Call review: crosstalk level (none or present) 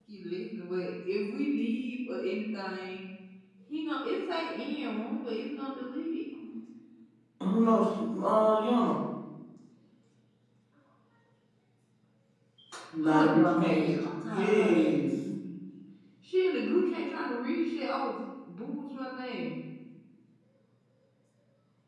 present